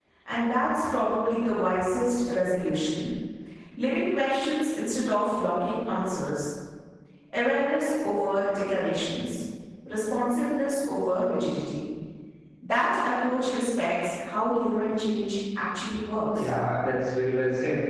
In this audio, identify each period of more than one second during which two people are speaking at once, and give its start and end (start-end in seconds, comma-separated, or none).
none